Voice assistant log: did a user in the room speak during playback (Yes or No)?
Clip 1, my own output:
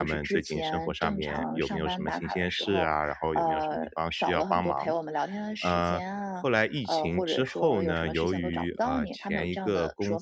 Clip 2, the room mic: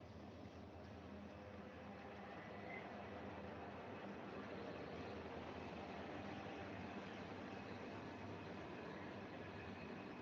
No